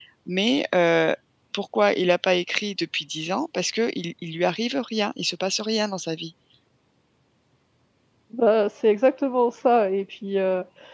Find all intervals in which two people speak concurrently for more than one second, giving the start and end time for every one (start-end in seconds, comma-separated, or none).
none